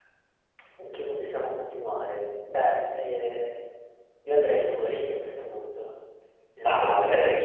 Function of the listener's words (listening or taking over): taking over